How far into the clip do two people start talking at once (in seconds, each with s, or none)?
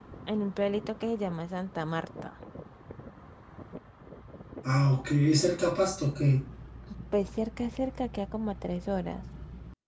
none